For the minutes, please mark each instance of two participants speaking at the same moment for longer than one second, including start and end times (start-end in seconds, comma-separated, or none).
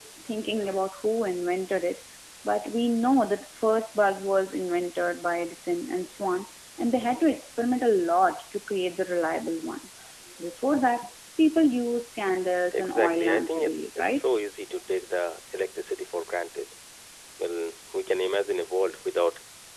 12.7-14.3